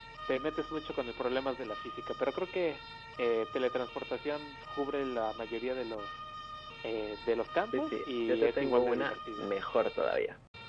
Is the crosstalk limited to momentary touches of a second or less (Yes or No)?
No